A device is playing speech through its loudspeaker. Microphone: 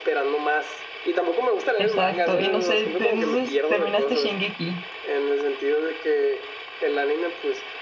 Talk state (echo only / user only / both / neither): both